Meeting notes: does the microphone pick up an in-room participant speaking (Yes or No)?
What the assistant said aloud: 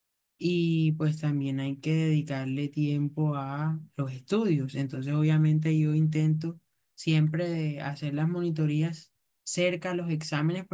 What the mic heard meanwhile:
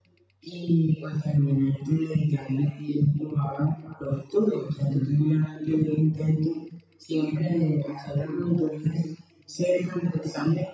No